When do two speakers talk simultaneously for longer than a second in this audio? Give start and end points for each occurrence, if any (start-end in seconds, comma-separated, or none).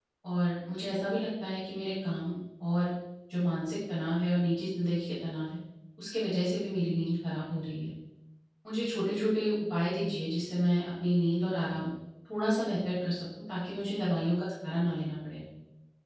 none